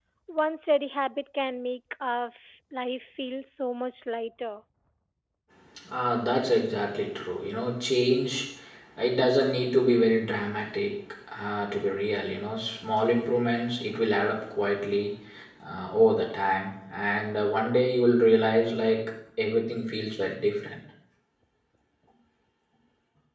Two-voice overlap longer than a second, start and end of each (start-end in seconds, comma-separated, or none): none